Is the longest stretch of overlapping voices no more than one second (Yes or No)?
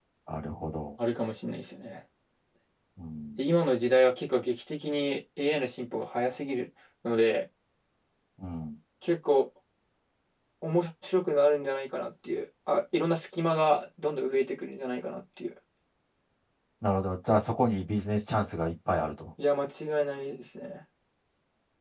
Yes